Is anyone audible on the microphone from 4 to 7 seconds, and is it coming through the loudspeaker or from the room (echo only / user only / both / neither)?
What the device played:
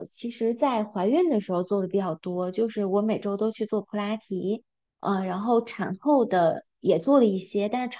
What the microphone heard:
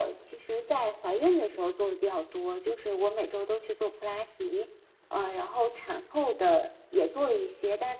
echo only